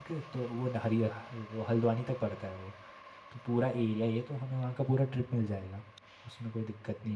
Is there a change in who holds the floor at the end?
Yes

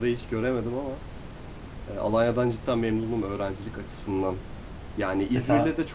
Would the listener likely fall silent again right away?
Yes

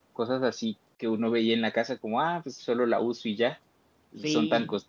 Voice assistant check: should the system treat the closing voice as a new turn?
No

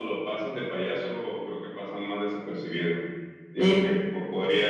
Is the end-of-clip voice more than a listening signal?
No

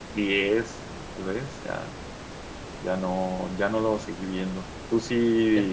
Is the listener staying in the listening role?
Yes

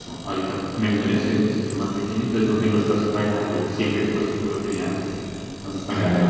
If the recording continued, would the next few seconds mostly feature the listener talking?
No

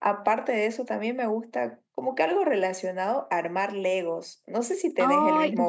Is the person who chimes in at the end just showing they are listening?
No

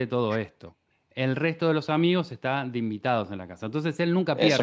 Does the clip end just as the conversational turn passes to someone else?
Yes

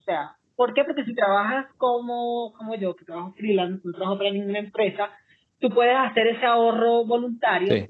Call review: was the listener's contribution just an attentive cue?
Yes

